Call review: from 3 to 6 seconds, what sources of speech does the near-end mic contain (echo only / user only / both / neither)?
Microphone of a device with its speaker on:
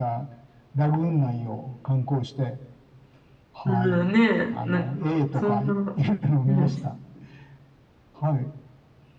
both